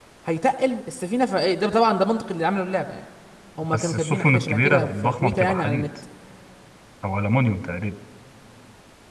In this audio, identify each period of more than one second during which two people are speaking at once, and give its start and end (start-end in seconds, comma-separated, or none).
3.7-5.9